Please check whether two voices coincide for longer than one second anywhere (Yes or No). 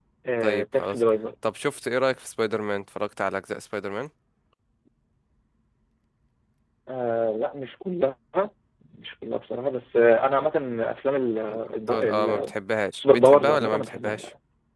Yes